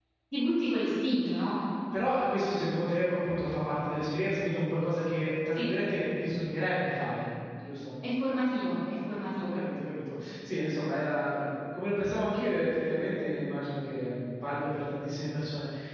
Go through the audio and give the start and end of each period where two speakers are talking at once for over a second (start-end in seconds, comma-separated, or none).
none